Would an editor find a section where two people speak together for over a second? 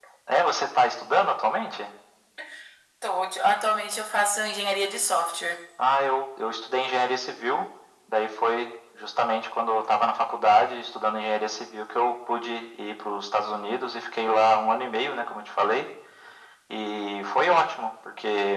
No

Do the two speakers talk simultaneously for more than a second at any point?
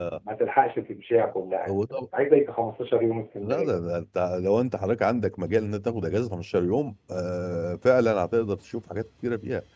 No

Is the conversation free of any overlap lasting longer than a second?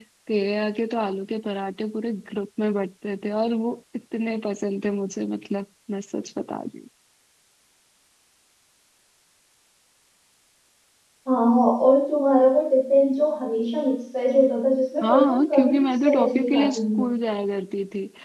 No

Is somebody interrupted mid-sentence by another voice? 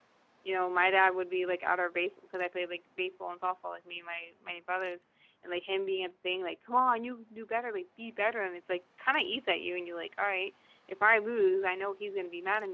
No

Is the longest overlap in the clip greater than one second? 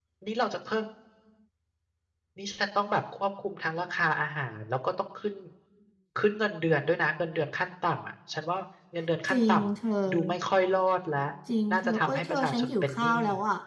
Yes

